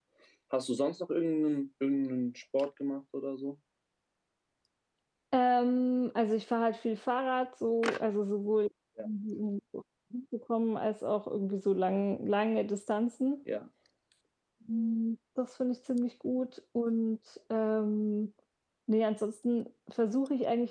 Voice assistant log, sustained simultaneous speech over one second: none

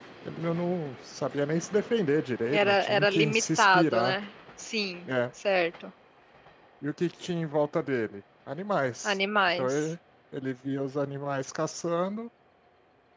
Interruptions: present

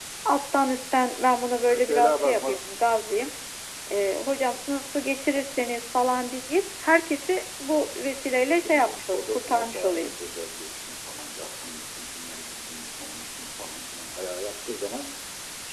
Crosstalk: present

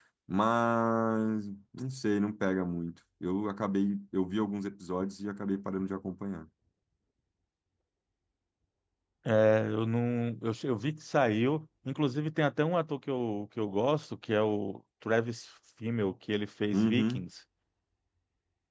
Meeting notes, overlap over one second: none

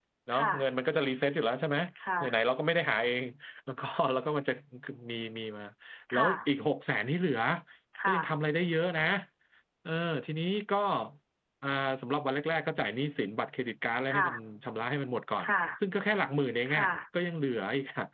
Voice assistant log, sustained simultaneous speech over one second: none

